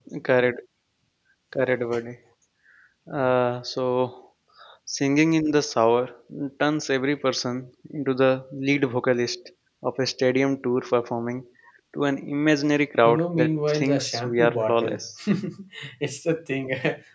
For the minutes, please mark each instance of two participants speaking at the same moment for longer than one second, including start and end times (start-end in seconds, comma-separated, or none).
13.0-15.0